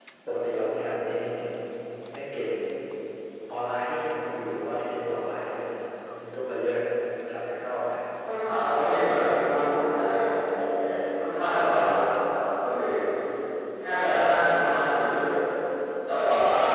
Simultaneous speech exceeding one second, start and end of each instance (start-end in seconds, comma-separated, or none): none